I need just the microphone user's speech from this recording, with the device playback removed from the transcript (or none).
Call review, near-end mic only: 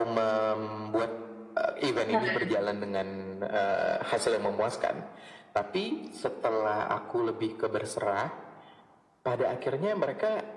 keren.